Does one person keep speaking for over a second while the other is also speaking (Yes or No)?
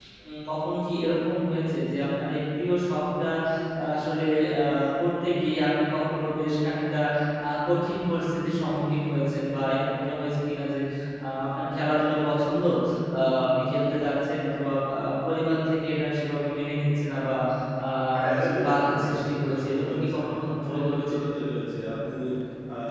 Yes